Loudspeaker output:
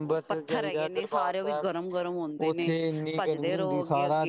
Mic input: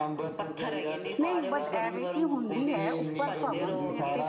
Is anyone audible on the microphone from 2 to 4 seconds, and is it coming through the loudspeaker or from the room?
both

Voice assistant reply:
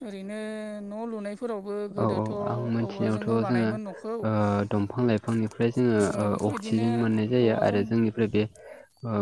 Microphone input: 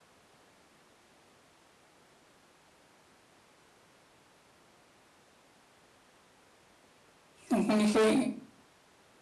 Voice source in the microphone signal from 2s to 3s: neither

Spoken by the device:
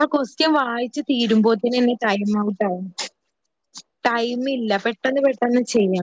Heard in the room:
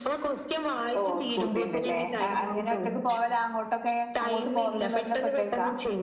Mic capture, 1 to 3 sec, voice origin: both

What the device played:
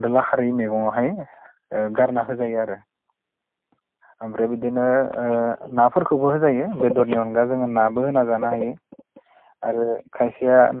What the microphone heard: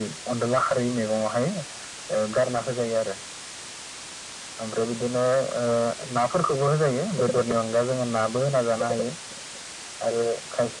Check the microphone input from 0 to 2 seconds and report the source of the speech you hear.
echo only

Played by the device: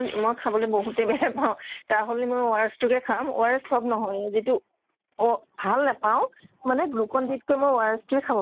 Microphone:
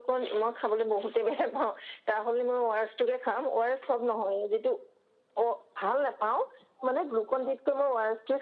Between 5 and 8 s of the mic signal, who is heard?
echo only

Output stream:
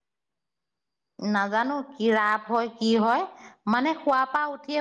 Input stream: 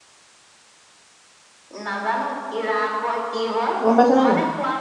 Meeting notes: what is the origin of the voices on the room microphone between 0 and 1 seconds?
neither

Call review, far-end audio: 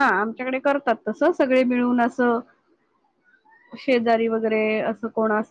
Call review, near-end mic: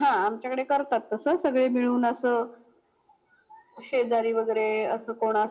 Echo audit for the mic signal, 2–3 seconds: echo only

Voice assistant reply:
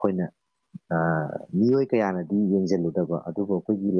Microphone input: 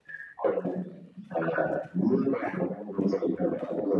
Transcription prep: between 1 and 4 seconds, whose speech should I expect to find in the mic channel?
echo only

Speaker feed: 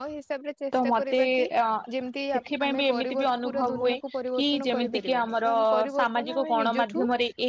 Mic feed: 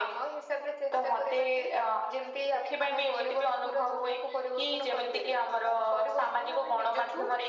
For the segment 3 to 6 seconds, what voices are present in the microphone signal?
echo only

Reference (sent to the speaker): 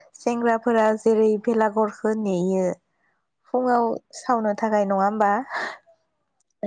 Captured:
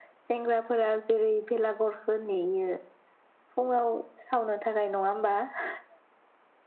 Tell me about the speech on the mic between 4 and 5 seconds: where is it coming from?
echo only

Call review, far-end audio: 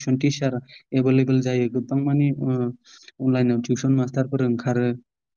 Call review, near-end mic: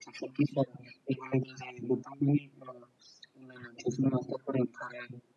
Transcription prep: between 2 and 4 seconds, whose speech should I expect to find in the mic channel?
echo only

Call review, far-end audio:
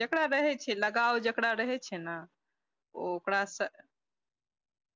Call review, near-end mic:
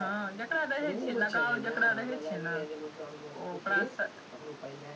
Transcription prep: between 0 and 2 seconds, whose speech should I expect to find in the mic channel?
both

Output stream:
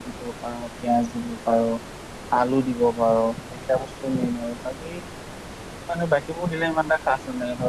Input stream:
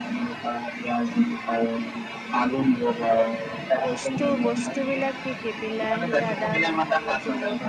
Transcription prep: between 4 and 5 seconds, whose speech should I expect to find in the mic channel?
both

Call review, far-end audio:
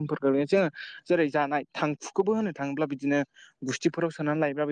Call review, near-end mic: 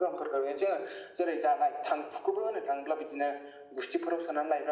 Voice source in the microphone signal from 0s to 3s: echo only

